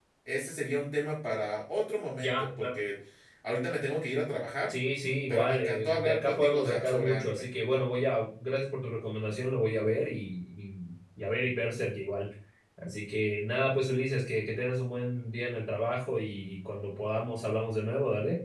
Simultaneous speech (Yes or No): Yes